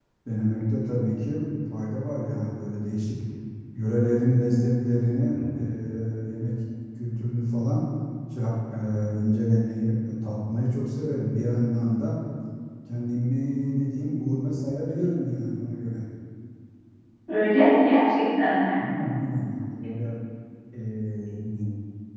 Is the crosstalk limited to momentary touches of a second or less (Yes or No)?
Yes